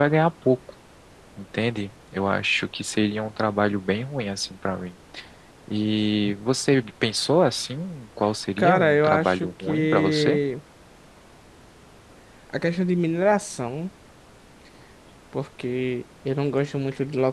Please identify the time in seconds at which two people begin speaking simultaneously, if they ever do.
8.6 s

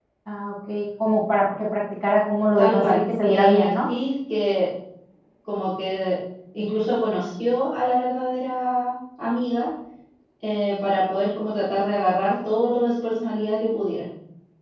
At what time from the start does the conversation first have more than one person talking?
2.6 s

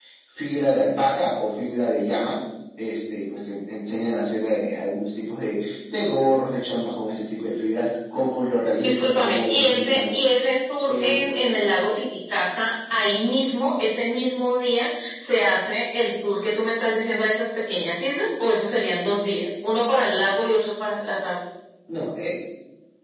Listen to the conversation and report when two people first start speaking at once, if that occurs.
8.8 s

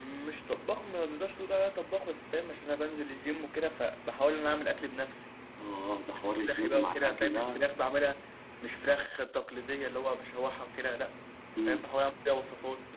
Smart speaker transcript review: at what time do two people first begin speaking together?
6.2 s

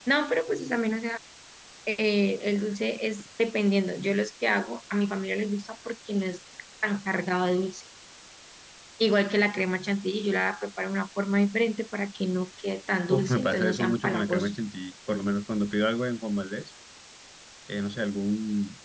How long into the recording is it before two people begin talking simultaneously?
13.1 s

